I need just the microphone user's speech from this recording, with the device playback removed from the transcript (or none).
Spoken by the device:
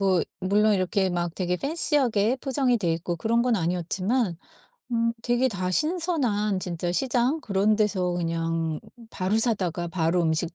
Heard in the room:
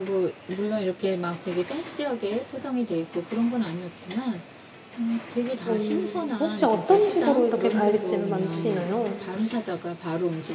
어. 혹시 어떤 식으로 이렇게 갈비찜을 만드시나요?